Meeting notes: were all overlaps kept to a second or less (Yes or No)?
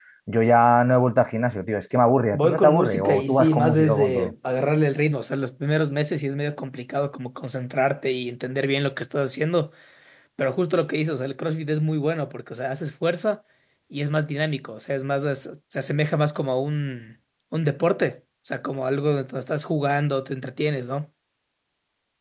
No